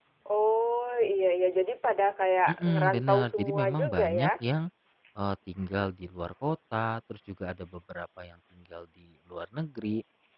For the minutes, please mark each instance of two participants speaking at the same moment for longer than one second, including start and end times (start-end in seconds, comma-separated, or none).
2.5-4.3